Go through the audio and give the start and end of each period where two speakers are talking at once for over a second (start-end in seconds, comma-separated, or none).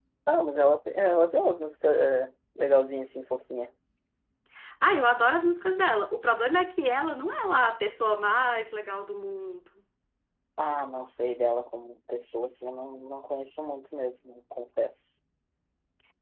none